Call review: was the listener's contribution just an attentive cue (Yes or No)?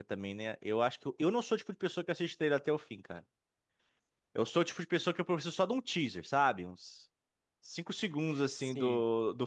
Yes